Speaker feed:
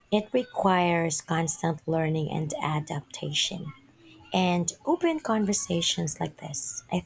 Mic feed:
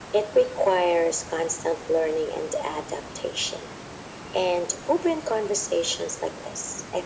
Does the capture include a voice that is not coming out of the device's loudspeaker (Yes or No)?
No